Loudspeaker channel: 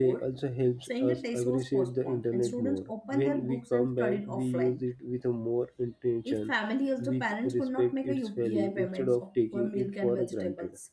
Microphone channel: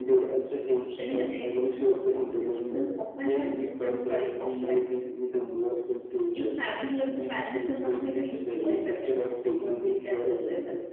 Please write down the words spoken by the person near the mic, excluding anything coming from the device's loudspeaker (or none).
none